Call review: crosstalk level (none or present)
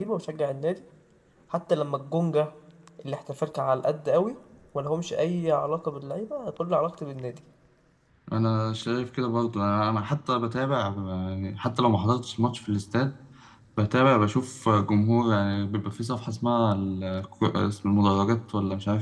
none